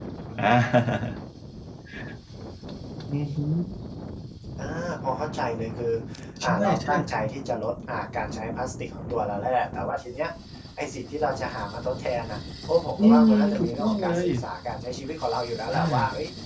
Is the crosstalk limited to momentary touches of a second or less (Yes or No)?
No